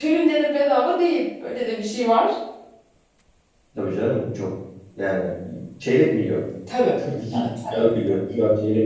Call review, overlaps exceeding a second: none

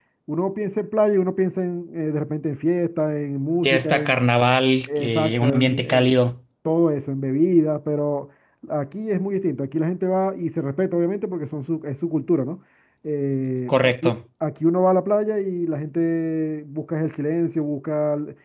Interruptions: present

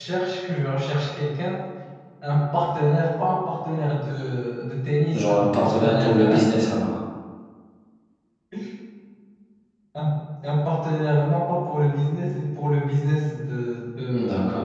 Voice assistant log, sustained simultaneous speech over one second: present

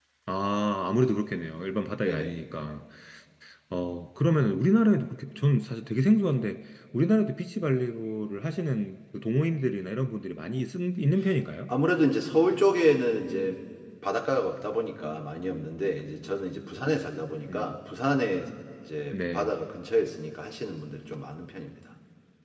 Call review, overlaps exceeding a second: none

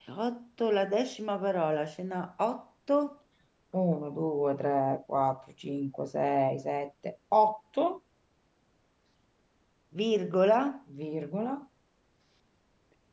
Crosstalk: none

